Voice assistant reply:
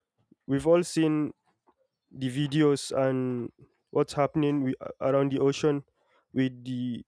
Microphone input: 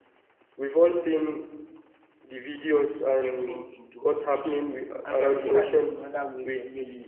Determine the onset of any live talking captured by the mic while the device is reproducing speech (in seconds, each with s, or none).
3.2 s